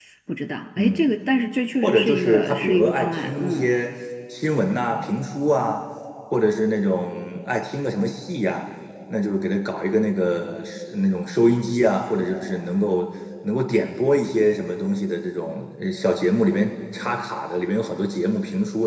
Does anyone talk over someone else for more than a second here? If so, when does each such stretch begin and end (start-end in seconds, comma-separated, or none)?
1.8-3.7